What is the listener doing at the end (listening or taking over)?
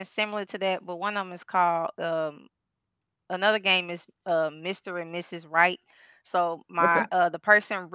listening